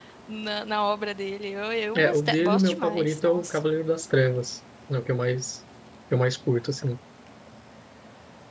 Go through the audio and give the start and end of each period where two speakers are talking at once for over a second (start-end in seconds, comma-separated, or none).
1.9-3.6